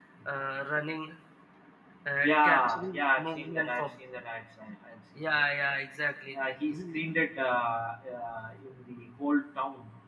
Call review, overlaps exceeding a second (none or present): present